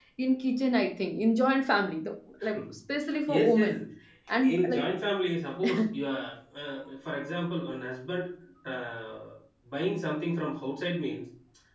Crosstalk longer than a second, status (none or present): none